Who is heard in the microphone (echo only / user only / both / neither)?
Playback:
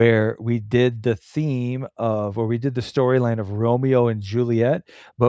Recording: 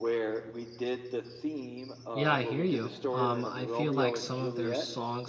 both